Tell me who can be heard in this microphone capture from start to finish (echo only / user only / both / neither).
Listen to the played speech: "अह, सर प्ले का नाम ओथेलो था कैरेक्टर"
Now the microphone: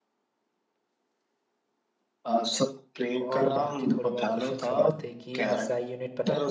both